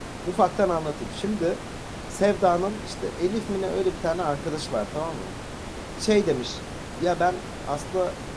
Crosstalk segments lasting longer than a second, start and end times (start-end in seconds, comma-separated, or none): none